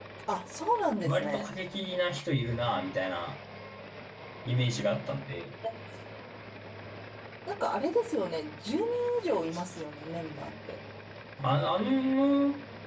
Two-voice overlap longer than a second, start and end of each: none

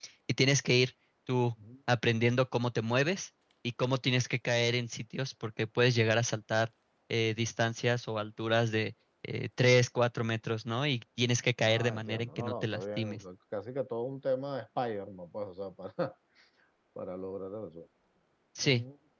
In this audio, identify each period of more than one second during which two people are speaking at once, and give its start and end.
11.6-13.2

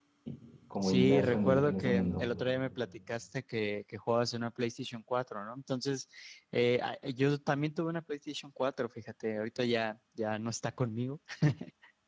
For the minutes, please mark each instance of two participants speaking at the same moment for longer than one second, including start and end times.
0.8-2.3

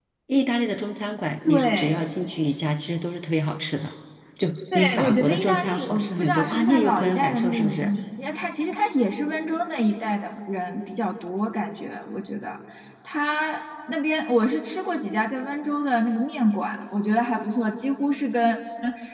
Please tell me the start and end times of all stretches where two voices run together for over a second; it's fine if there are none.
4.7-7.9

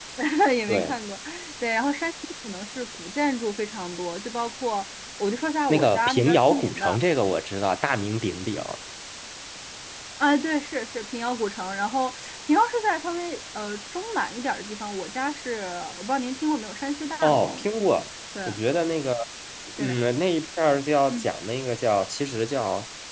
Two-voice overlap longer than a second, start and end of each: 5.7-7.0

